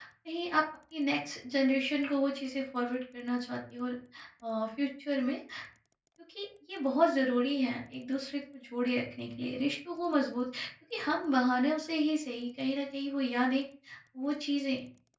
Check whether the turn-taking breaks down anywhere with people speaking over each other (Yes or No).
No